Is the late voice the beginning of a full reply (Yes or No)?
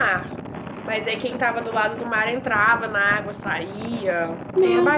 Yes